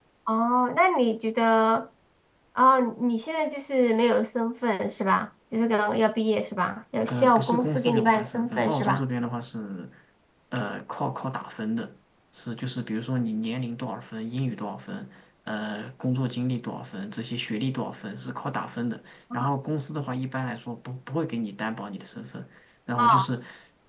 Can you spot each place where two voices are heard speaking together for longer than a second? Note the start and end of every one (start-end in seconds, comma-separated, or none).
7.1-9.0